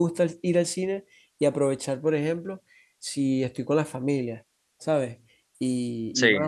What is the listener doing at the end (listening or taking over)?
listening